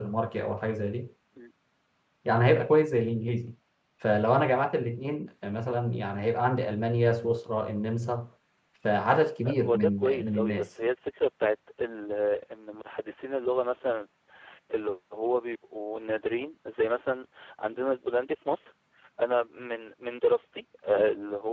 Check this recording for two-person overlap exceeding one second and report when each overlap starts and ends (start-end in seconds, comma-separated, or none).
9.4-10.7